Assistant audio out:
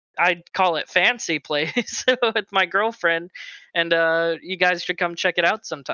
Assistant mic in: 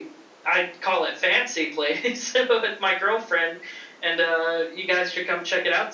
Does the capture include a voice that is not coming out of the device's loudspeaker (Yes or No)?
No